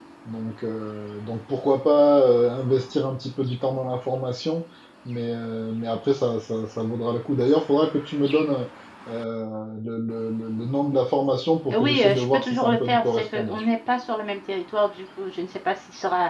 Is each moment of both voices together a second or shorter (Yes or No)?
No